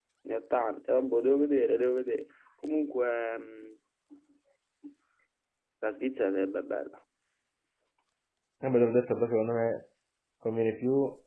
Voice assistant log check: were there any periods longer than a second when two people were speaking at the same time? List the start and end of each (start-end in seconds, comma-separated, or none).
none